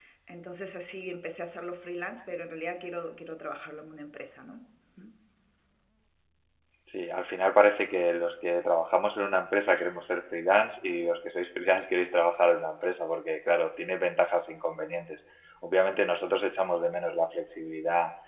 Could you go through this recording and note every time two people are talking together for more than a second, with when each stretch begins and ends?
none

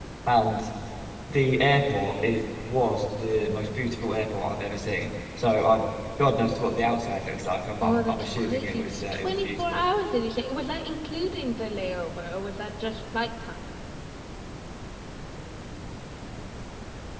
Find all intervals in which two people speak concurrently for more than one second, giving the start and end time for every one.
7.8-9.8

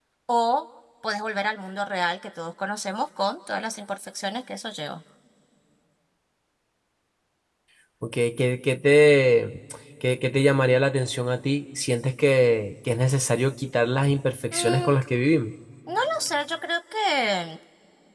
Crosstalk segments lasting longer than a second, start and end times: none

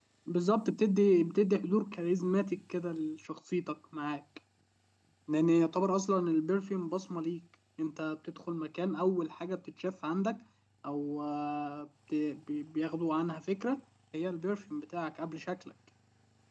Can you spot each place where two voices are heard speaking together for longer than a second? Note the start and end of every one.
none

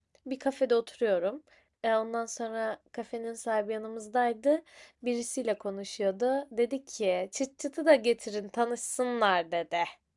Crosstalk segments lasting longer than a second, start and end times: none

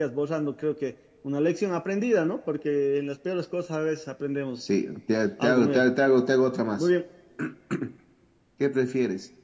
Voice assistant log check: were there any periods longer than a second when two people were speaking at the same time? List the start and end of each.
none

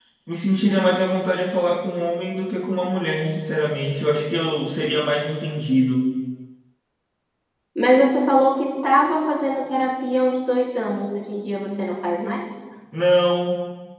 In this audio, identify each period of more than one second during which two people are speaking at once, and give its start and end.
none

